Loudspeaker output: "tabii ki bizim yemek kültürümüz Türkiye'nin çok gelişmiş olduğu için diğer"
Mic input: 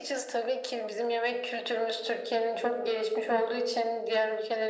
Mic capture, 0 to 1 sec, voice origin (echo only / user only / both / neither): echo only